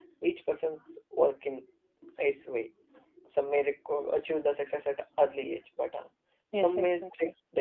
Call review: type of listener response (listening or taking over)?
taking over